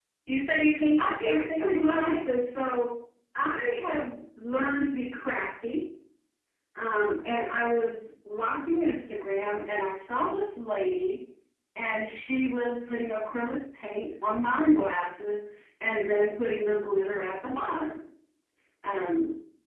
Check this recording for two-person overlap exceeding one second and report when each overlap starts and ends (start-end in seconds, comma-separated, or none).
1.0-2.2